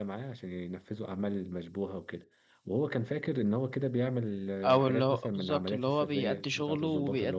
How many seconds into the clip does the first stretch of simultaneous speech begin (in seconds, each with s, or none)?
4.6 s